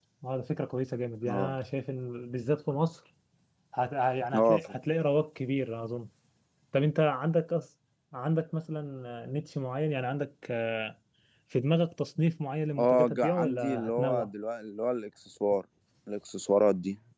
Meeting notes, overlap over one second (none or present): present